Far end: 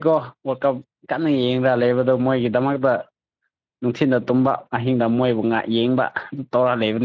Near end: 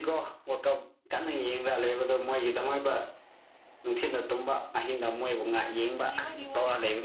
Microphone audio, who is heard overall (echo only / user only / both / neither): both